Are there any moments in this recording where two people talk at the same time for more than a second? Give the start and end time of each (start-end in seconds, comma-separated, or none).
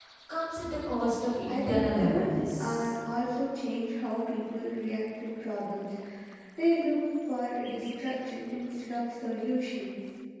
1.5-2.9